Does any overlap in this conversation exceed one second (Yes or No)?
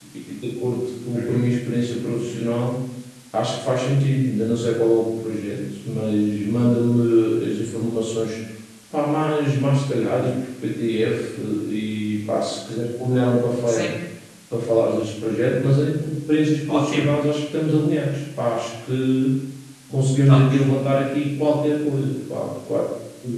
No